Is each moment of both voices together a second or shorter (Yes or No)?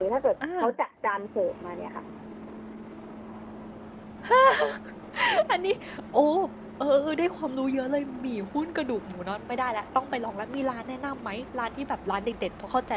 Yes